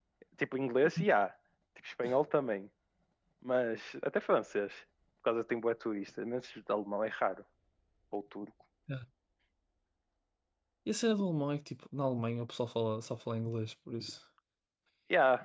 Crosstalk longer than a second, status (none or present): none